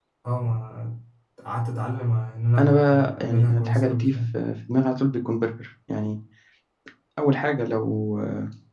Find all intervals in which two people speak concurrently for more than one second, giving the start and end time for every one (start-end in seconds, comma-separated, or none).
2.6-4.4